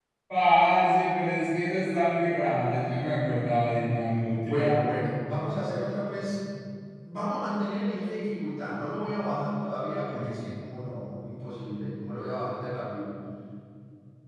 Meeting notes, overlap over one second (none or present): none